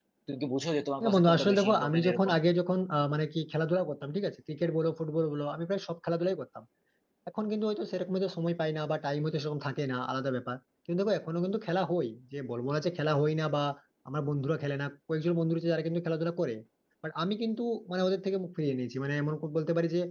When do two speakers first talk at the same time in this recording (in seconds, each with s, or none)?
1.0 s